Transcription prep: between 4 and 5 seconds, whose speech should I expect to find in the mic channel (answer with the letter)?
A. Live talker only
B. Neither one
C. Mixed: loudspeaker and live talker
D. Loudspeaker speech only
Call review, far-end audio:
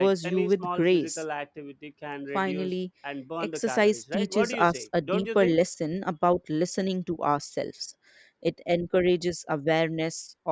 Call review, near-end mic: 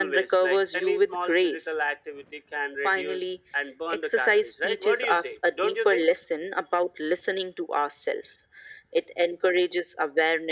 D